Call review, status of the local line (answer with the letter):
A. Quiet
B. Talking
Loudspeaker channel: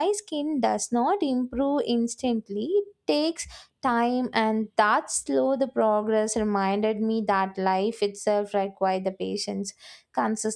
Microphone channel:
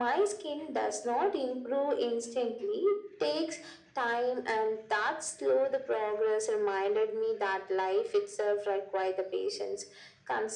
A